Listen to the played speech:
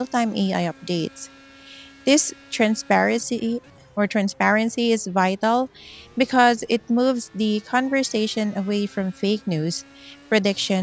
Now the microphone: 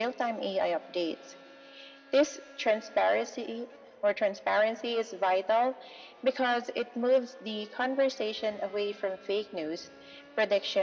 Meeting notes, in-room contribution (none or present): none